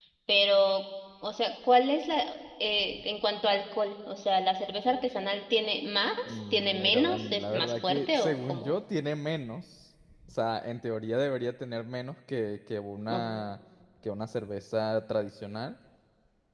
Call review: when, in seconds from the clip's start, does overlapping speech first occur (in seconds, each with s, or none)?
6.5 s